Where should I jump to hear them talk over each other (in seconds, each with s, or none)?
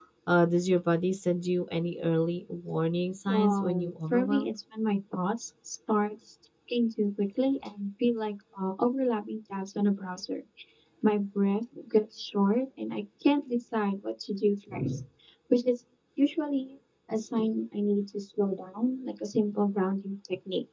3.3 s